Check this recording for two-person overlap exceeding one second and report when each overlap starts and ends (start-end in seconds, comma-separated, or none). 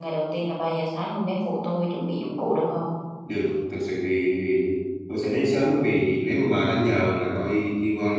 none